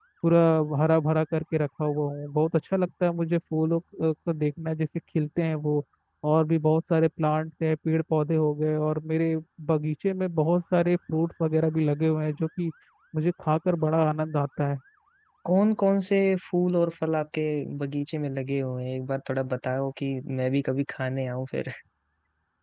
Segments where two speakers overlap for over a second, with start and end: none

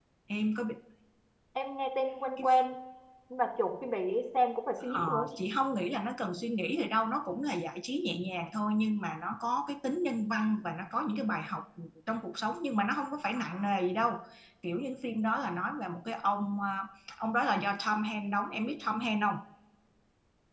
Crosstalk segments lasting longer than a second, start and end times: none

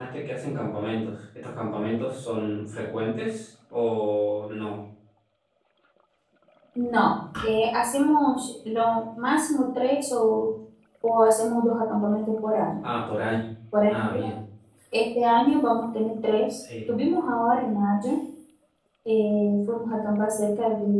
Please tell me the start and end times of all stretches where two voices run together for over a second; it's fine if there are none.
none

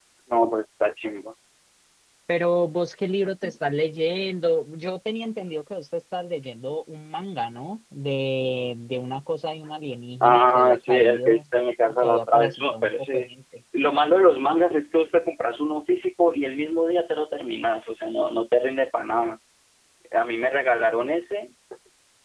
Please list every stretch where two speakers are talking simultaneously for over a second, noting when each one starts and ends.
10.2-11.4, 12.0-13.3

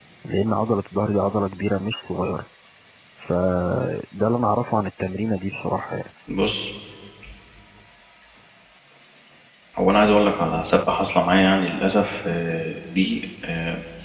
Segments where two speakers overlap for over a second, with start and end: none

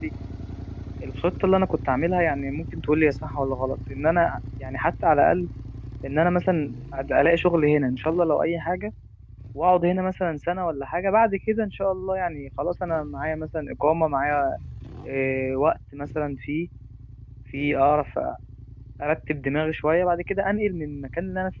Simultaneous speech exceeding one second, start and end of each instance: none

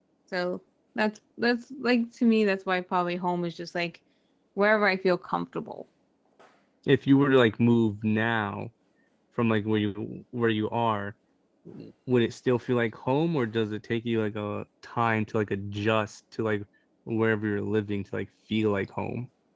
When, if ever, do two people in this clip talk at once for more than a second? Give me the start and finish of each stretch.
none

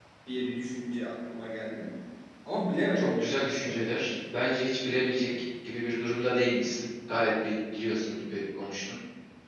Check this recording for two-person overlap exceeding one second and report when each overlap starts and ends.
3.0-4.2

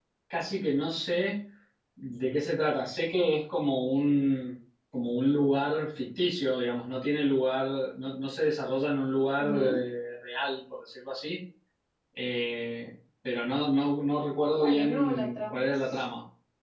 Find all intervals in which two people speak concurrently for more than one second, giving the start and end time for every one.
14.6-16.0

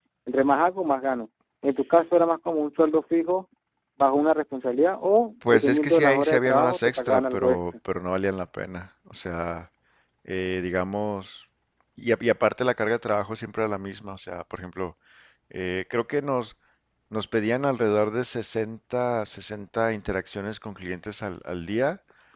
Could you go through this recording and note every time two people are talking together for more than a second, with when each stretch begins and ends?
5.5-7.6

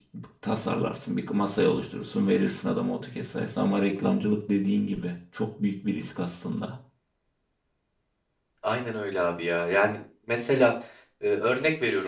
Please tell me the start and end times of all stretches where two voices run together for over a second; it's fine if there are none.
none

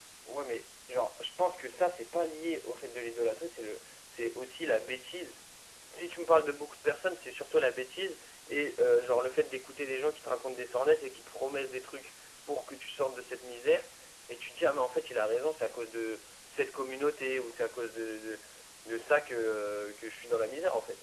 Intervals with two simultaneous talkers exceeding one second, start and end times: none

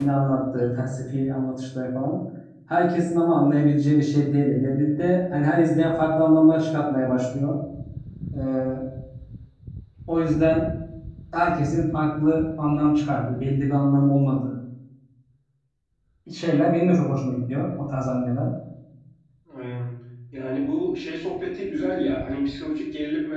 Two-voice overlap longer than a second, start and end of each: none

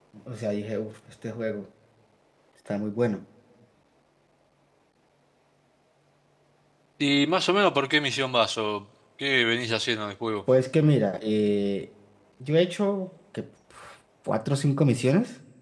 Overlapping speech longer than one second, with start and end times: none

